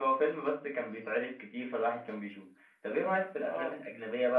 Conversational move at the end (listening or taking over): listening